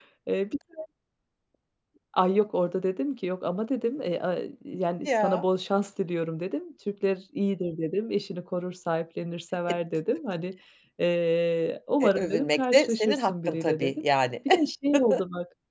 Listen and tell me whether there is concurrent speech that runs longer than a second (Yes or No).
Yes